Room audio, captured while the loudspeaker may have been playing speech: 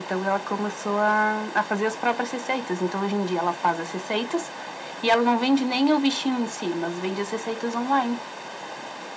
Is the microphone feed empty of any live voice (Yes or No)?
Yes